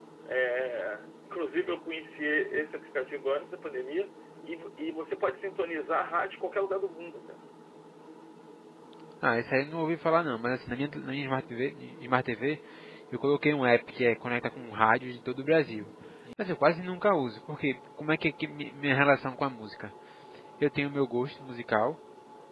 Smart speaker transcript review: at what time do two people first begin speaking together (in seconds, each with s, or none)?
none